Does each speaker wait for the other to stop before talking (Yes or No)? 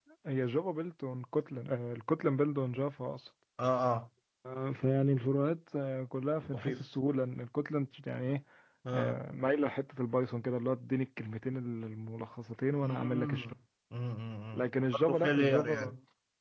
No